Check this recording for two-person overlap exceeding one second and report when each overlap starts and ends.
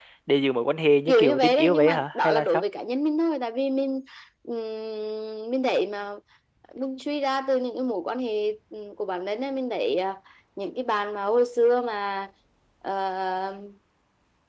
1.1-2.6

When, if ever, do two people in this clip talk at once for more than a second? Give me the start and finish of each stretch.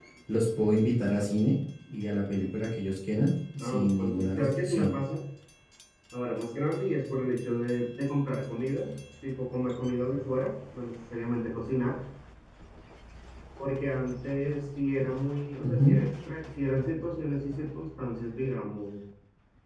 3.6-4.9

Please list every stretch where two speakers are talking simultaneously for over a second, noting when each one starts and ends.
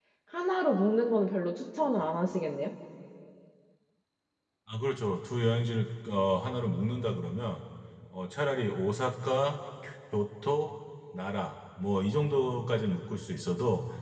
none

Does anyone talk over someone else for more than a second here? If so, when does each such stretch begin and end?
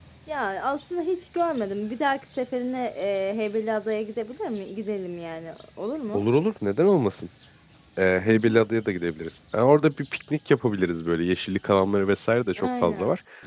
none

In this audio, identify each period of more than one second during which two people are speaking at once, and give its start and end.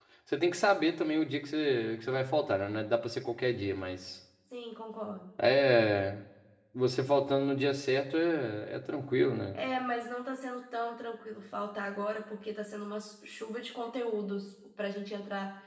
none

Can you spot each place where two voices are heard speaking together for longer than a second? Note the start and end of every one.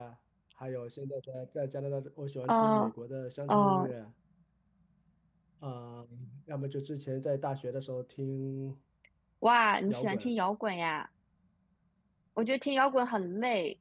none

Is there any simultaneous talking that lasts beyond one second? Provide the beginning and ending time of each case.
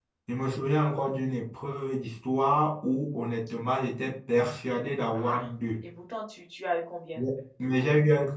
none

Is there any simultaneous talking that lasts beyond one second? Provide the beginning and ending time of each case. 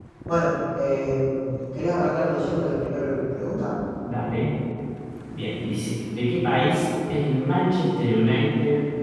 none

